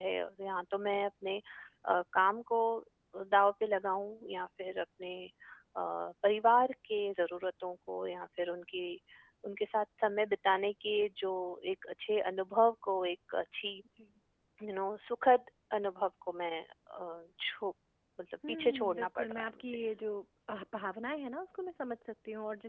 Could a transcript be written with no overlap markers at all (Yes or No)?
No